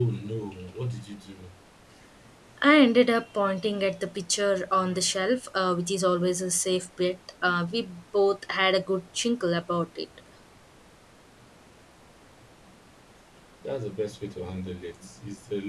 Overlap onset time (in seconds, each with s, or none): none